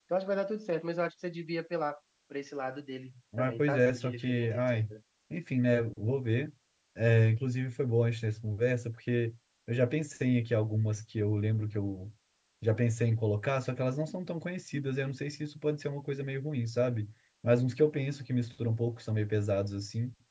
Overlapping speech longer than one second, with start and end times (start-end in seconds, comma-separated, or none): 3.4-4.8